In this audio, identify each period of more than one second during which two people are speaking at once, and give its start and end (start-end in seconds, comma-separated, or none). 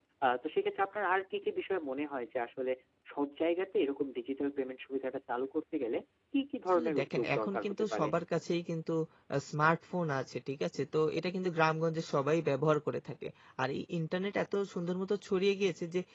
6.8-8.1